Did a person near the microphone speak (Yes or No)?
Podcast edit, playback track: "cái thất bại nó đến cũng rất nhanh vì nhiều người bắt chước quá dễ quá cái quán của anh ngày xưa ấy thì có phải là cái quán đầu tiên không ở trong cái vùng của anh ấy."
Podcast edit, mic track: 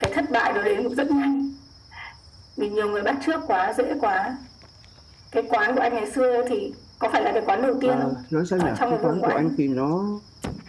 Yes